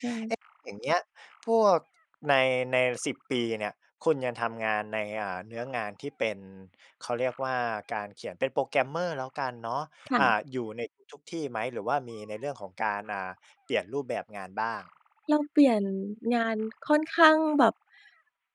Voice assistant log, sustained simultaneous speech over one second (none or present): none